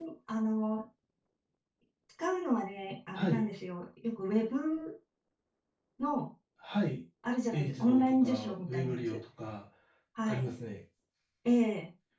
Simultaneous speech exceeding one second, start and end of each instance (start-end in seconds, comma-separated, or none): 7.5-9.2